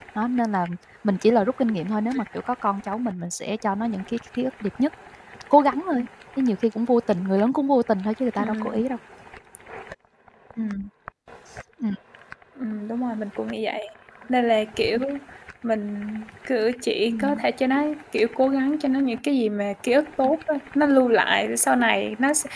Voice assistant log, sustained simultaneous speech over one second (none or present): none